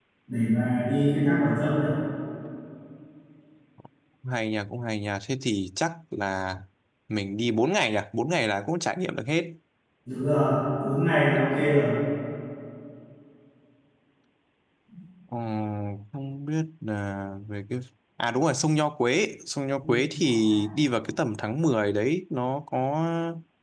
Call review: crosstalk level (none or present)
none